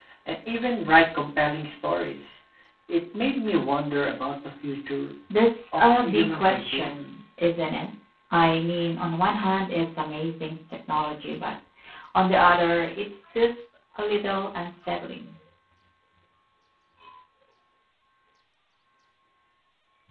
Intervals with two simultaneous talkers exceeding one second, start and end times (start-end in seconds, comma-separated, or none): 5.7-6.9